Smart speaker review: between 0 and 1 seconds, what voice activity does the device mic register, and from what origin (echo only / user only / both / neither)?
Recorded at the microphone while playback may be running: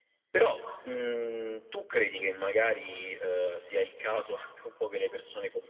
echo only